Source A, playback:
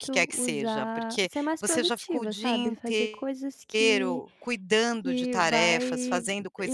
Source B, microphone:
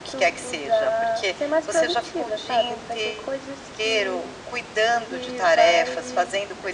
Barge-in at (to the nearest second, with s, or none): none